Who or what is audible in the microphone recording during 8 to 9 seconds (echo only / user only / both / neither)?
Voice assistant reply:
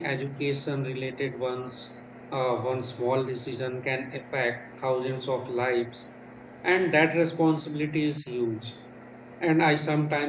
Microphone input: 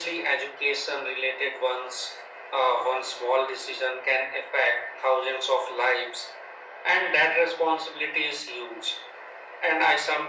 echo only